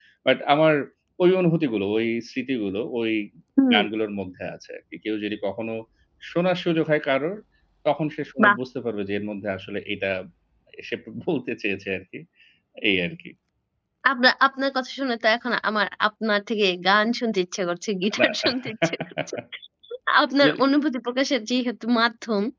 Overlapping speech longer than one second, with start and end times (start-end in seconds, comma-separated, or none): none